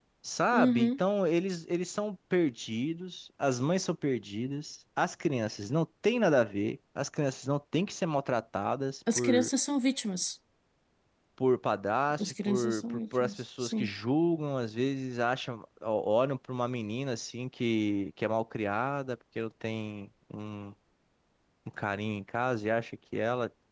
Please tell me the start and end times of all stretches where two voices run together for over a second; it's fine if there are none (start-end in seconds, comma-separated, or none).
12.2-13.9